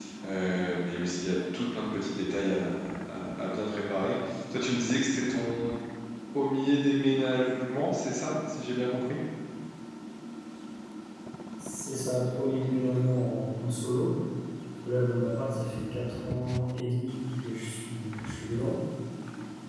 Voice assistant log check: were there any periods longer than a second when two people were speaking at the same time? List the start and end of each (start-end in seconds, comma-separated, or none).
none